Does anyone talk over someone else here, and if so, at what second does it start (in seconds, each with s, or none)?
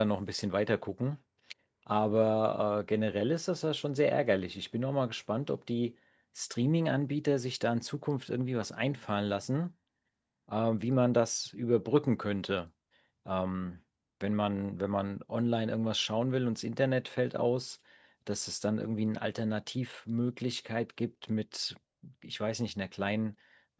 none